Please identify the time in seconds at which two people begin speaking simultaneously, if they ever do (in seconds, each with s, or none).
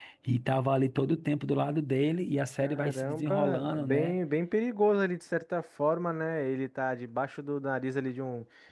2.6 s